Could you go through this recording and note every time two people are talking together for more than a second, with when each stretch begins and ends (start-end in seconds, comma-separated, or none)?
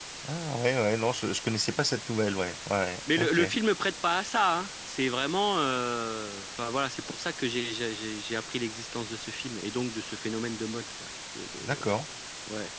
none